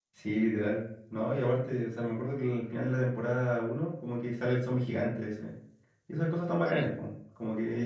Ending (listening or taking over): listening